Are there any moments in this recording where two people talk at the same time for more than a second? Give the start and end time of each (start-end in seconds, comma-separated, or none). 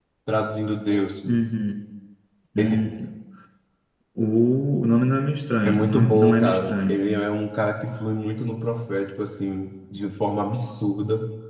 5.7-7.1